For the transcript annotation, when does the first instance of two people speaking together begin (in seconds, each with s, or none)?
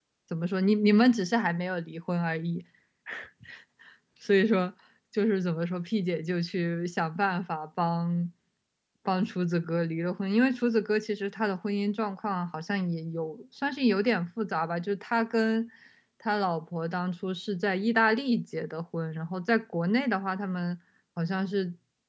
none